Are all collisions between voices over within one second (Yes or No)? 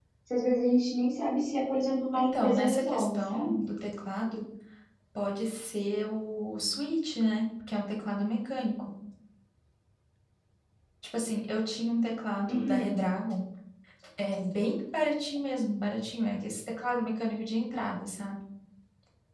No